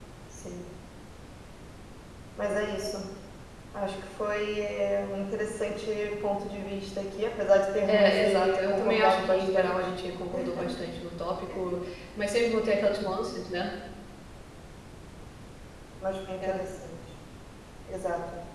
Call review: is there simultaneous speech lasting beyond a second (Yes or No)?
Yes